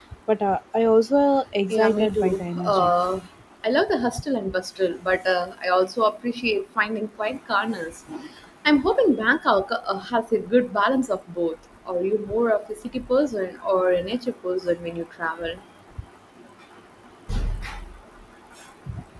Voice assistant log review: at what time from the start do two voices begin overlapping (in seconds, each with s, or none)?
1.7 s